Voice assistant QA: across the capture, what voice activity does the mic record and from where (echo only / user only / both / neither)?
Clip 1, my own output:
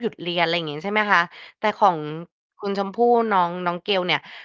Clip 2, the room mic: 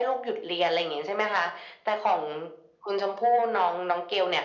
echo only